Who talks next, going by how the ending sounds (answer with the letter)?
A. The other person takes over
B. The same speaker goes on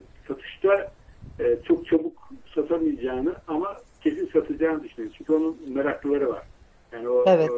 B